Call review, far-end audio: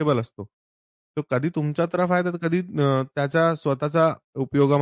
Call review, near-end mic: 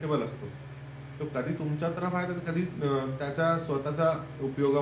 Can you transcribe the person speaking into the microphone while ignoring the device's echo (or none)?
none